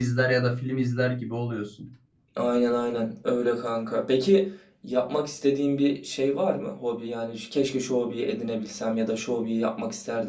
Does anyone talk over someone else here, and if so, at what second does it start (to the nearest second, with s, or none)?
none